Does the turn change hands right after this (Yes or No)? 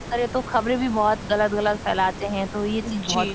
Yes